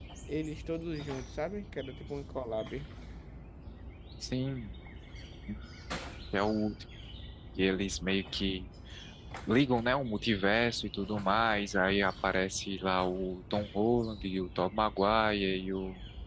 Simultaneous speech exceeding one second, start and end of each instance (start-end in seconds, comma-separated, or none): none